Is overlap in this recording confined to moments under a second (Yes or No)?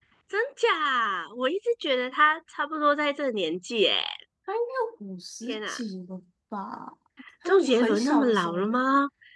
No